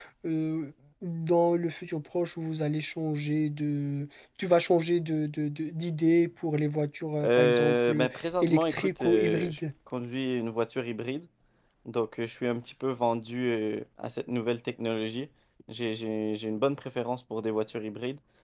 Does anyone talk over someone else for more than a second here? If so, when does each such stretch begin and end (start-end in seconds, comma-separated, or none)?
7.2-9.6